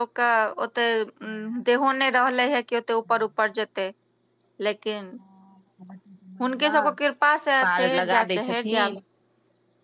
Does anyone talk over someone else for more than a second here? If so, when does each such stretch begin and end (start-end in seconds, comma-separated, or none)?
7.6-8.9